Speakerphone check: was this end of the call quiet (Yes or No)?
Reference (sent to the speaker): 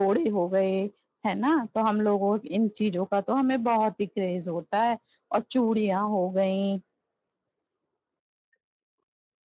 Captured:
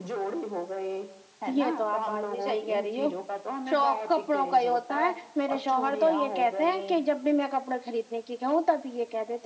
No